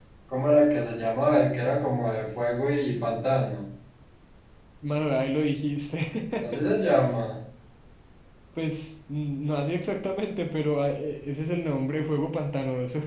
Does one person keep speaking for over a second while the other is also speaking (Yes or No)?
No